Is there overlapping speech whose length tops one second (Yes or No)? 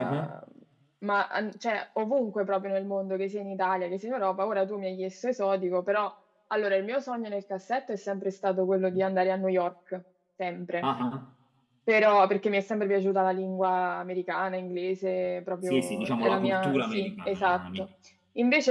Yes